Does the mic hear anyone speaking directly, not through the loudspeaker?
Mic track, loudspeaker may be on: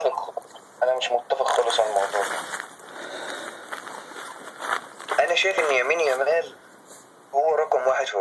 No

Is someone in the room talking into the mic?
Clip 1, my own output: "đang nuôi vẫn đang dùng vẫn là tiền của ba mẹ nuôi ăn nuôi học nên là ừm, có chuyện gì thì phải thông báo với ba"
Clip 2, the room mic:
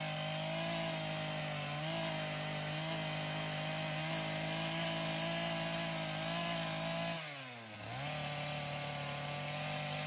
No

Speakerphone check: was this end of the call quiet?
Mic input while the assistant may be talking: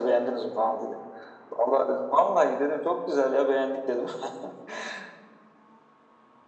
Yes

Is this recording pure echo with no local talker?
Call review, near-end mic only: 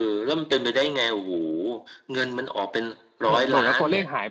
No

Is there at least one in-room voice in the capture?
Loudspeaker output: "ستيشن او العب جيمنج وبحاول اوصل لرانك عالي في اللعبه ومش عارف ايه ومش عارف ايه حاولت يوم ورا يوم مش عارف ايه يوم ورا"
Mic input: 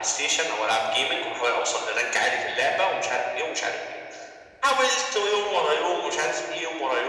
No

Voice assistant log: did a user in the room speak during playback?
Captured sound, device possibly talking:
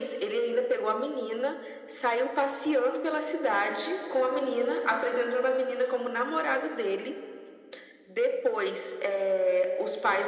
No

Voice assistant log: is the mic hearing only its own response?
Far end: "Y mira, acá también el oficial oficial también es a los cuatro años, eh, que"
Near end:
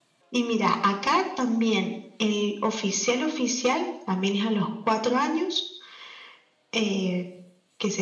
Yes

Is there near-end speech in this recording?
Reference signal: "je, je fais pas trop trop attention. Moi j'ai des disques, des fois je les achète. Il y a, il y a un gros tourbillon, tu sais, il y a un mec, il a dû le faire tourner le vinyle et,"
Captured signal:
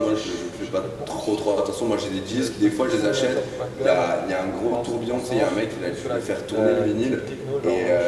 Yes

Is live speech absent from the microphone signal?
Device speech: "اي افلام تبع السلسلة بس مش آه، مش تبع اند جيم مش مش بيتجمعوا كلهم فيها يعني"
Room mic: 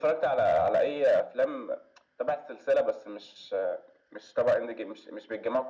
Yes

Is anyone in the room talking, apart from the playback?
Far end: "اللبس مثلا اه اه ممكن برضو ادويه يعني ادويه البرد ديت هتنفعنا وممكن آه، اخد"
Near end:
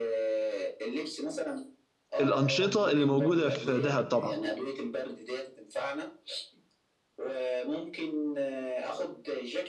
Yes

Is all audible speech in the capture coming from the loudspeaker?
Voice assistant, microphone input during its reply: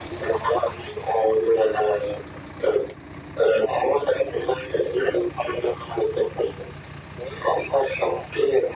Yes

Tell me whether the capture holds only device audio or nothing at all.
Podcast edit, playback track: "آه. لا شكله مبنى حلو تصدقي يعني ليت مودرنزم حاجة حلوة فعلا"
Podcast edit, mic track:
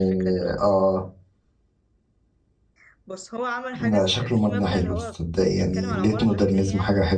No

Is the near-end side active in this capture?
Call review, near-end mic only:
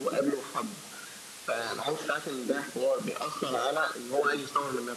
No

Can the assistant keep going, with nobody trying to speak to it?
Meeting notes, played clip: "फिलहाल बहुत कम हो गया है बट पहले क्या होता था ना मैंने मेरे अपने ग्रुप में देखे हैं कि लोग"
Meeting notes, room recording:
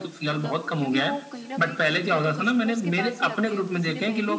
No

